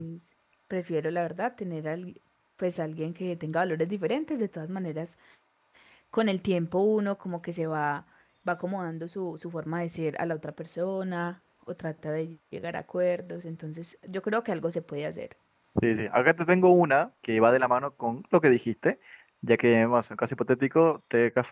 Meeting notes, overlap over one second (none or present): none